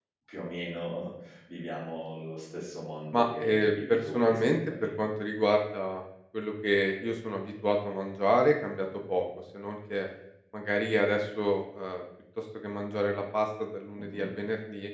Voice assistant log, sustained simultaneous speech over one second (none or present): present